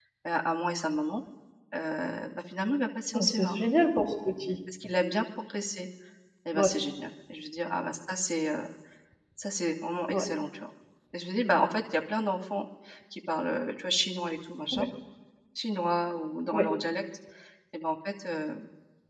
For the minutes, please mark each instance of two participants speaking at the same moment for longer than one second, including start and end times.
none

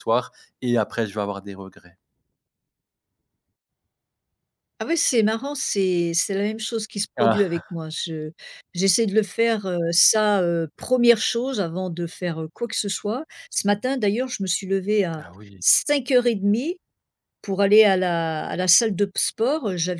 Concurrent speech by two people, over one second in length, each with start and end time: none

